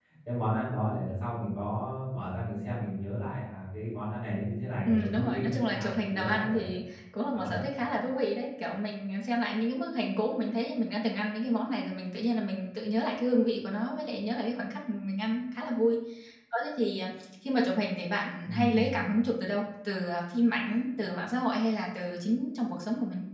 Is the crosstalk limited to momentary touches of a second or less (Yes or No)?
No